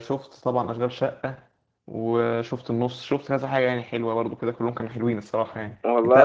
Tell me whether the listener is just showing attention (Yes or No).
Yes